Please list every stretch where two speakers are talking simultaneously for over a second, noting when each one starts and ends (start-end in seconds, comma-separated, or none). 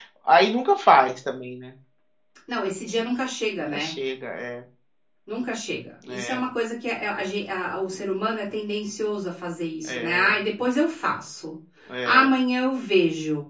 none